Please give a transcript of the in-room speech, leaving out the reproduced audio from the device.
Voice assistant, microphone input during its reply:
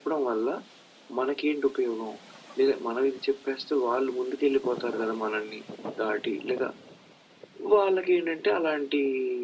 none

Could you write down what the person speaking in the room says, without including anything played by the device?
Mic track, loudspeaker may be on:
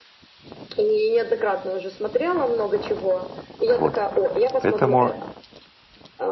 Вот. Поэтому,

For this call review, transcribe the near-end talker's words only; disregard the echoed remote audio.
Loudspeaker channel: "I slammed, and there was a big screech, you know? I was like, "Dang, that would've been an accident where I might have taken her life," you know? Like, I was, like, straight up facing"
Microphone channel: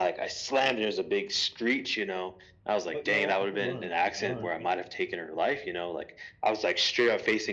But you know what? I did learn. I learned. and

